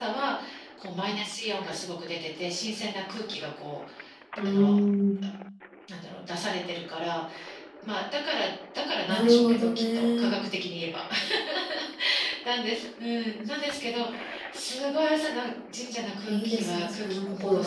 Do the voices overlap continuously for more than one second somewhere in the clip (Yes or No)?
Yes